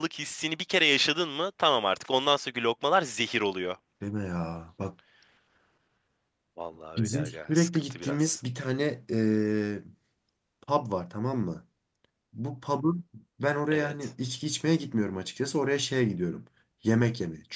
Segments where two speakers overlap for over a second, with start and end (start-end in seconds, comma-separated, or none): 7.0-8.4